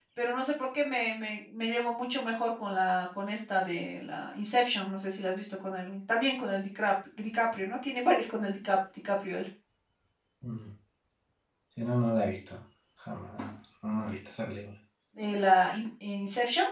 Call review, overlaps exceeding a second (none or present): none